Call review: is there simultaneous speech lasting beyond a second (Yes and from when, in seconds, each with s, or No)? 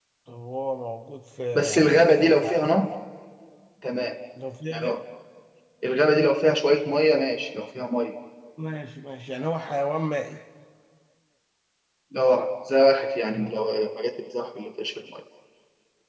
No